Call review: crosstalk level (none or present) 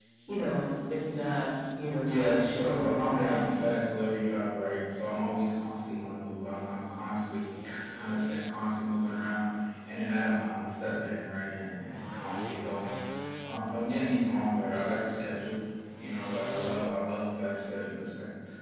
present